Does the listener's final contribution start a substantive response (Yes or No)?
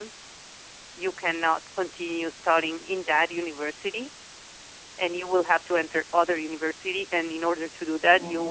No